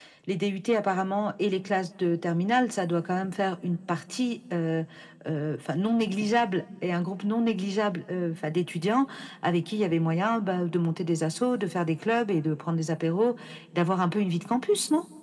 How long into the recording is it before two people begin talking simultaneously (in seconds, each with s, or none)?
none